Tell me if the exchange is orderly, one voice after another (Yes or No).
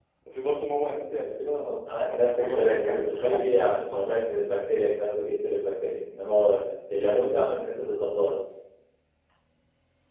No